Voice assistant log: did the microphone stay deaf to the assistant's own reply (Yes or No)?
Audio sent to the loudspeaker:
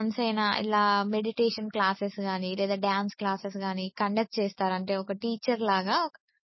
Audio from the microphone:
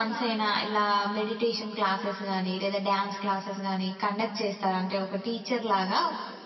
No